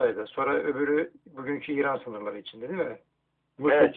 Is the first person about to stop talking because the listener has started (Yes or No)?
Yes